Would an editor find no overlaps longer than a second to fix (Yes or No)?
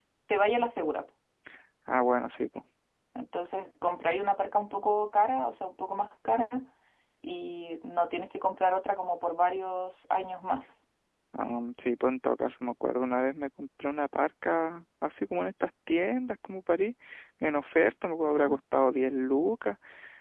Yes